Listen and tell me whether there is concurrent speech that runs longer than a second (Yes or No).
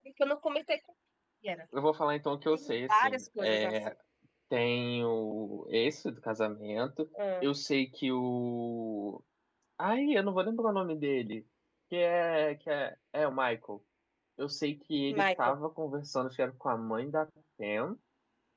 Yes